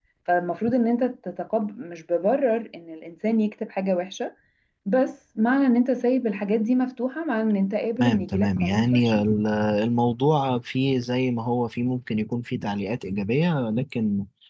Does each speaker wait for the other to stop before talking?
No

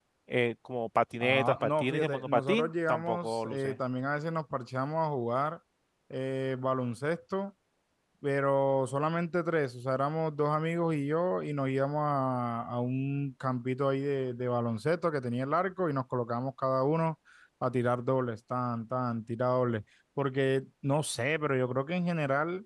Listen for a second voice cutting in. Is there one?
Yes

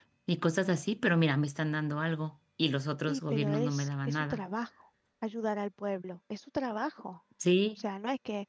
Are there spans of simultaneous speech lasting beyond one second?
Yes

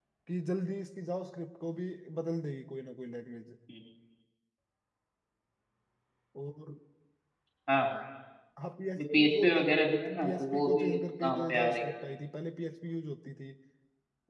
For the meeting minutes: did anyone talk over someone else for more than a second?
Yes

